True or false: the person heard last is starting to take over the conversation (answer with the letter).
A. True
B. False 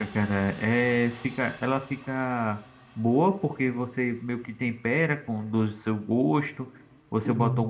B